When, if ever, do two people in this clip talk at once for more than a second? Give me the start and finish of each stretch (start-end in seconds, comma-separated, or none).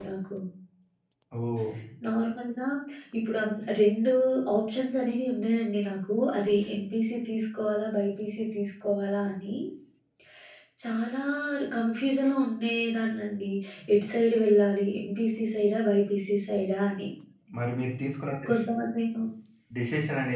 none